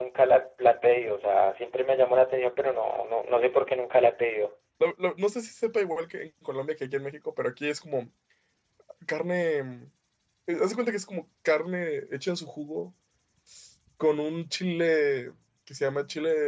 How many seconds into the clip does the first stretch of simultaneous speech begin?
none

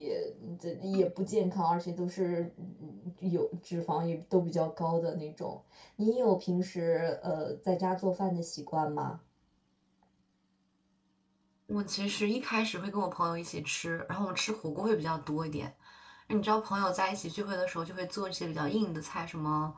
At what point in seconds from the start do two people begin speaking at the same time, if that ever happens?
none

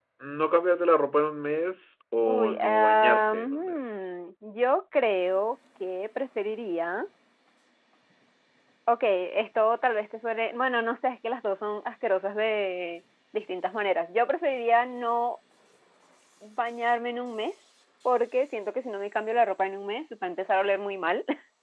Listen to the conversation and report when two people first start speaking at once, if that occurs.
2 s

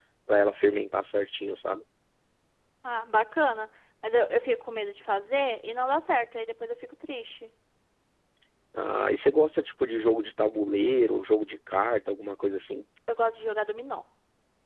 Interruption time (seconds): none

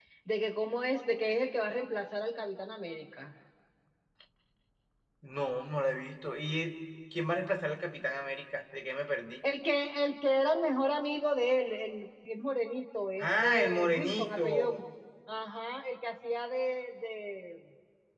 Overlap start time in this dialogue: 13 s

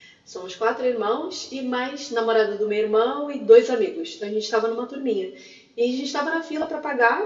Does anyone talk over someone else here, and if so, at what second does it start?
none

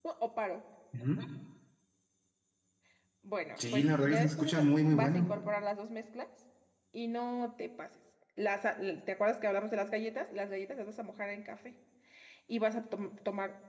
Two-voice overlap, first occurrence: 4 s

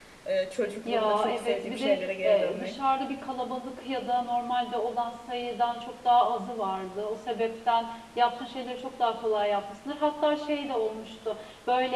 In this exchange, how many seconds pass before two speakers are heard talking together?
1 s

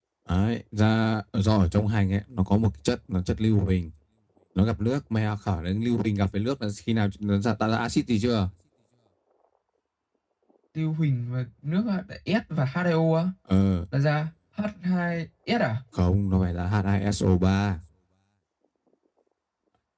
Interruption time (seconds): none

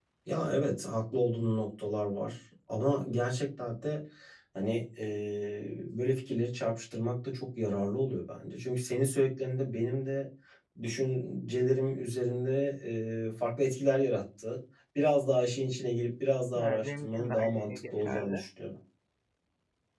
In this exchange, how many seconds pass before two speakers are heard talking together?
17 s

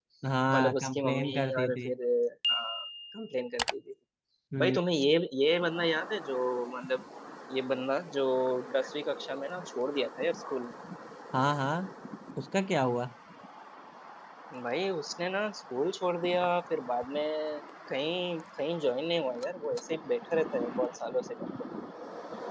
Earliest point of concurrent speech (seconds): 1 s

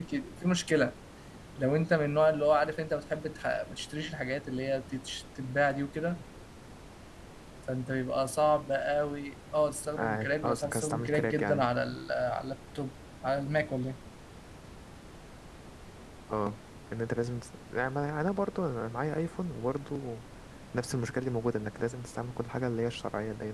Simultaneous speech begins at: 10 s

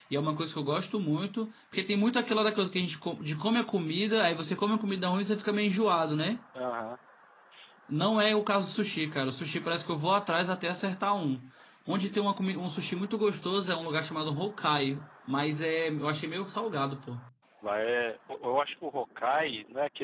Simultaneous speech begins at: none

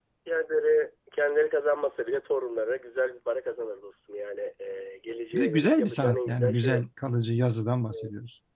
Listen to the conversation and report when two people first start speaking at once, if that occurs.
5 s

